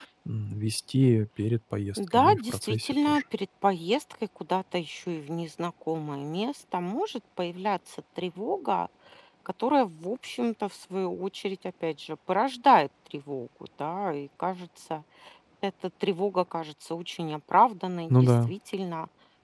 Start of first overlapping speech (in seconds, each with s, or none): 2.0 s